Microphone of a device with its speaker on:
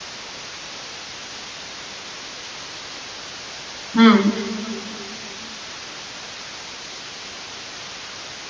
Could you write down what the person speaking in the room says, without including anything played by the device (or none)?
Mhm.